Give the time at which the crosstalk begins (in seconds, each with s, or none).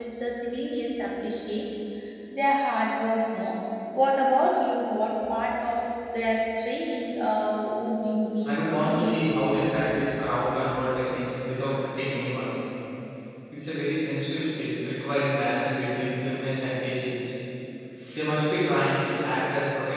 8.4 s